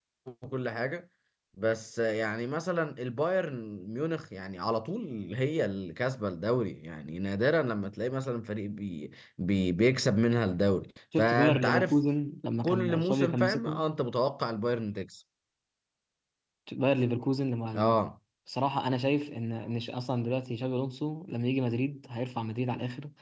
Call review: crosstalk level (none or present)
present